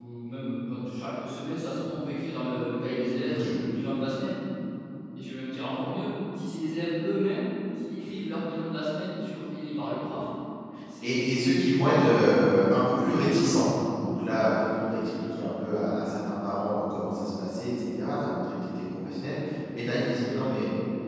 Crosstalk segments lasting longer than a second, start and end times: 11.0-12.3

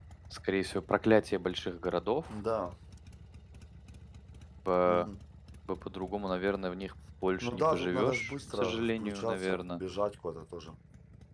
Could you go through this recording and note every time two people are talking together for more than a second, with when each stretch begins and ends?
7.4-9.8

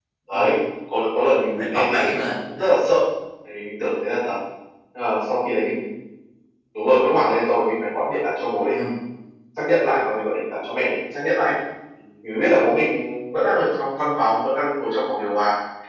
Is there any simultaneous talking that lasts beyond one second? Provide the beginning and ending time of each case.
1.5-2.8

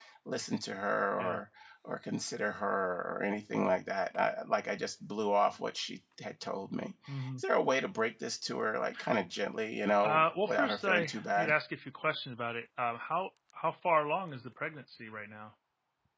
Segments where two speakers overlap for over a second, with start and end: 10.0-11.5

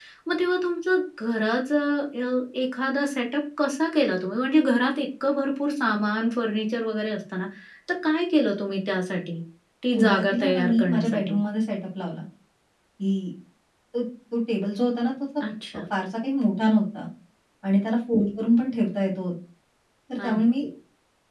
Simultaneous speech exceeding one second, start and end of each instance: 9.9-11.4

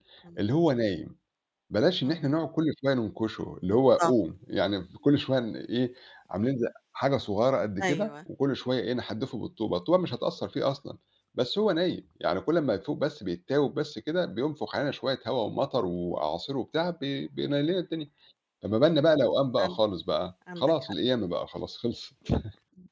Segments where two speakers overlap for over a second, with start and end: none

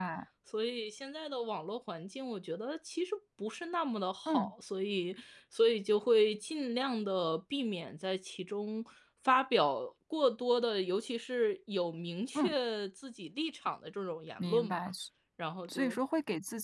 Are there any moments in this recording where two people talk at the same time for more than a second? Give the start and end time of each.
none

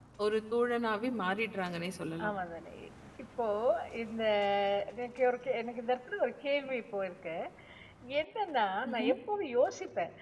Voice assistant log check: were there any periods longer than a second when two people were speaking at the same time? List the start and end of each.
none

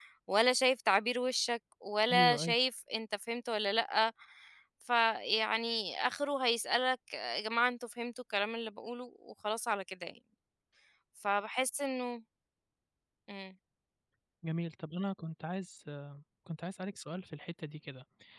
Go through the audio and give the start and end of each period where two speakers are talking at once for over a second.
none

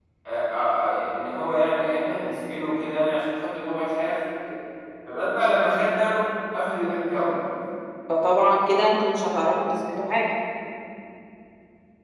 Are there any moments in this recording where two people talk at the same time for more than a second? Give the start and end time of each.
none

